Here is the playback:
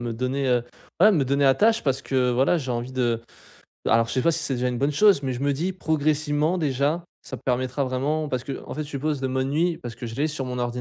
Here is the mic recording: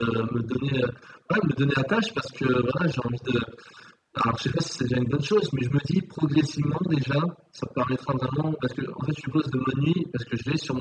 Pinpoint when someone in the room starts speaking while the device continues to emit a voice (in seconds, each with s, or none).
none